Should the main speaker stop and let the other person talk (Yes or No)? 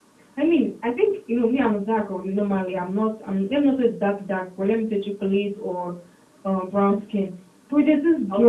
No